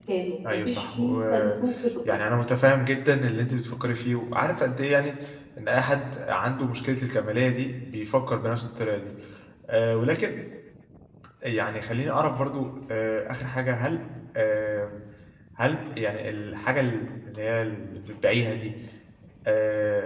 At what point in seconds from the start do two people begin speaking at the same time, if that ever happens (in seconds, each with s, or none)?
0.5 s